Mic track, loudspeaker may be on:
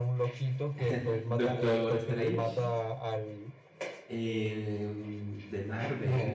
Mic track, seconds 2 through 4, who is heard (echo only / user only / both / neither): both